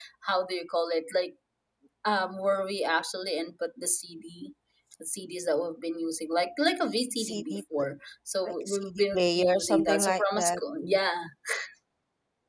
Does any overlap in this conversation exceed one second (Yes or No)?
Yes